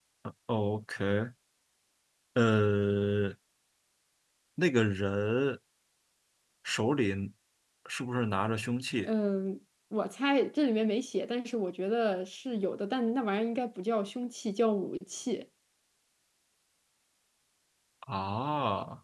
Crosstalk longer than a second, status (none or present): none